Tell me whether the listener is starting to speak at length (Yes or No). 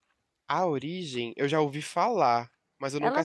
Yes